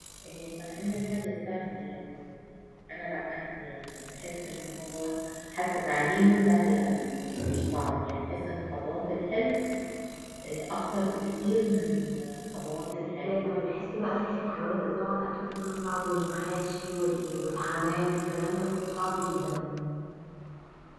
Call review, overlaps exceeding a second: none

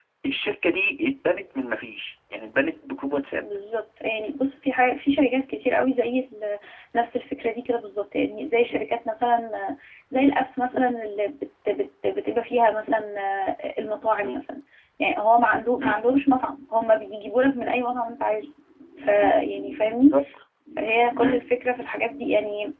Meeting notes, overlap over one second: none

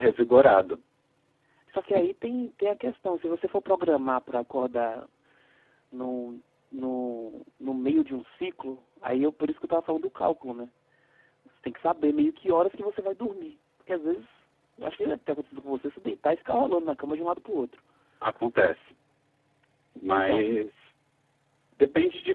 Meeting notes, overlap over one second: none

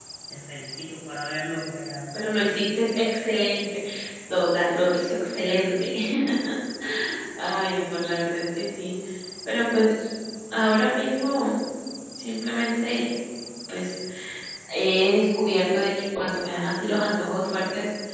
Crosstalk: none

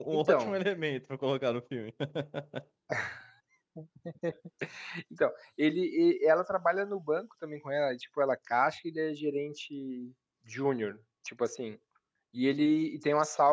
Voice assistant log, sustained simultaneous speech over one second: none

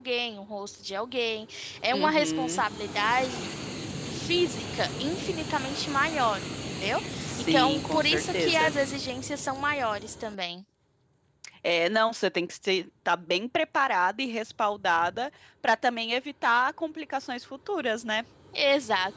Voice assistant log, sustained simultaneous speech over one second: present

